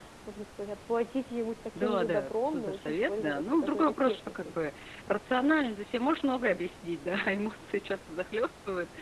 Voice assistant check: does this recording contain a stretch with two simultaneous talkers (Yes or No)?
Yes